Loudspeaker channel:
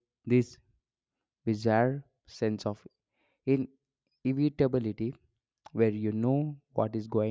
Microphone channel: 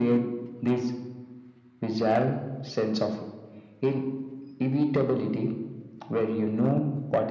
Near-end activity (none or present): none